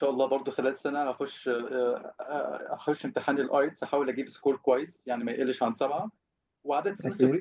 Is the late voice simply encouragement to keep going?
Yes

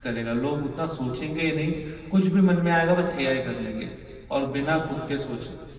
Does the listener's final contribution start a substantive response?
Yes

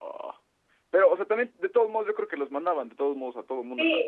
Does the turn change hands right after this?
Yes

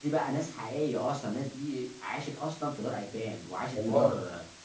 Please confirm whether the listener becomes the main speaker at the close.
No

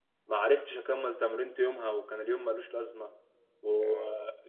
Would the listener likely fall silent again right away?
Yes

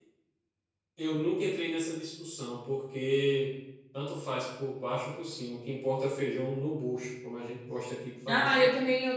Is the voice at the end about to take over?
Yes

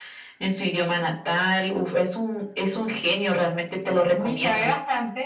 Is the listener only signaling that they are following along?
No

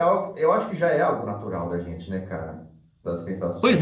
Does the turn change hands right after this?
Yes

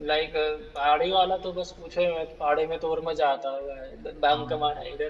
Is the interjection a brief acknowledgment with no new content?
Yes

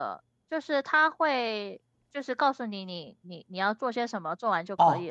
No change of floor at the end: No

